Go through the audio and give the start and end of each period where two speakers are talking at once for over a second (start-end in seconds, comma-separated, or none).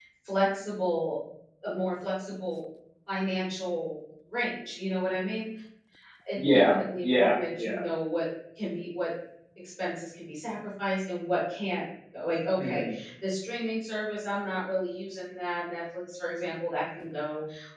6.4-7.8